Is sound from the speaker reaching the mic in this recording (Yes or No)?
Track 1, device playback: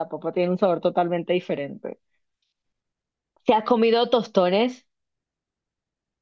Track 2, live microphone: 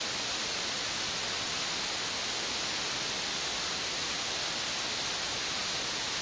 No